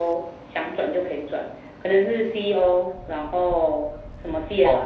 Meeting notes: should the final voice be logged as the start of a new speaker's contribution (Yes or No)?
Yes